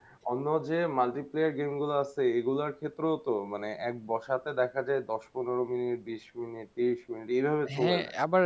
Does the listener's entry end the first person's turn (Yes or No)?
Yes